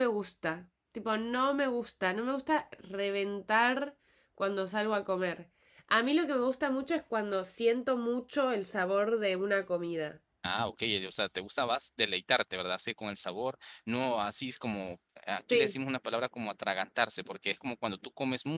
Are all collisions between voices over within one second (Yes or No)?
Yes